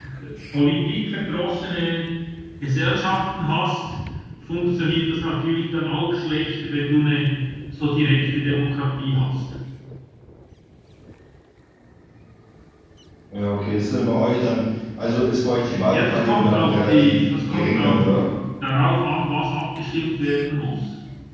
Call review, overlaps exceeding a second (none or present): present